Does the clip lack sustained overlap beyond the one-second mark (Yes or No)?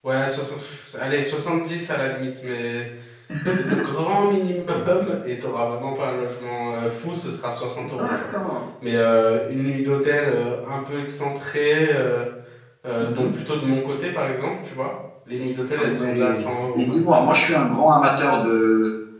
No